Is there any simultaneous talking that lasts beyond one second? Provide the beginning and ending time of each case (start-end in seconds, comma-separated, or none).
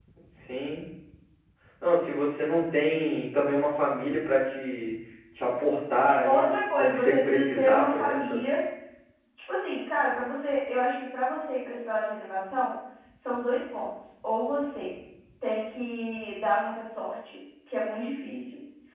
6.1-8.4